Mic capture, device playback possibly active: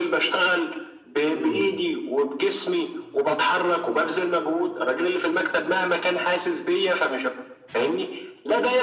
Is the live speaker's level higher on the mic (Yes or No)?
No